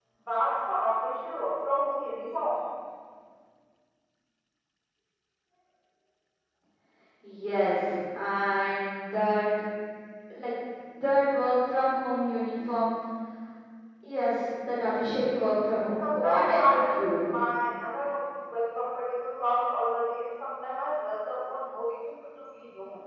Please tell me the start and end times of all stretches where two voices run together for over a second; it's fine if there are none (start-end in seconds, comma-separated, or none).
16.0-17.2